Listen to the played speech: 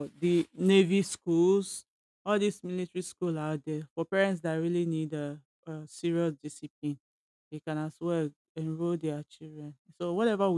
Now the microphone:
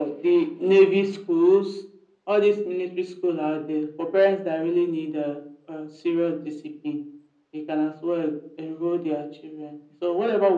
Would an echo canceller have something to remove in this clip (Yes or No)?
Yes